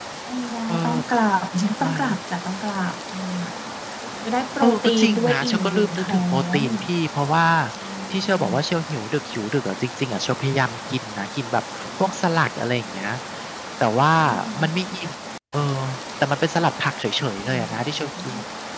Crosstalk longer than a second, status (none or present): present